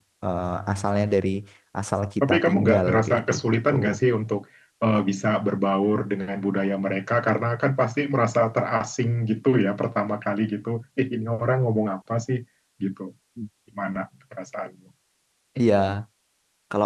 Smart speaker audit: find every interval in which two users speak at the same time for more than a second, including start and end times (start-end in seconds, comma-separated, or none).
2.2-3.7